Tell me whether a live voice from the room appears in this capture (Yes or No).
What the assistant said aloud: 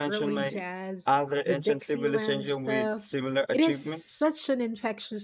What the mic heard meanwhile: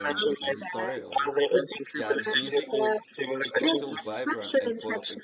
Yes